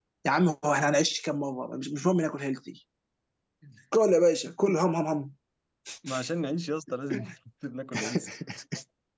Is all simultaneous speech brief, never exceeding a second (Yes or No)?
Yes